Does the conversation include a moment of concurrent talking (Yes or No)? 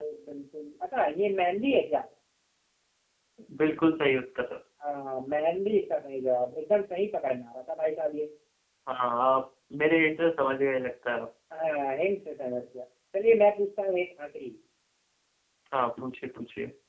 No